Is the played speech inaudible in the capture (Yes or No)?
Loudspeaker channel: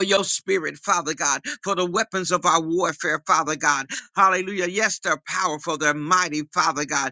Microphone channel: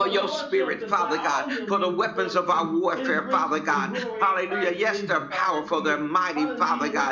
No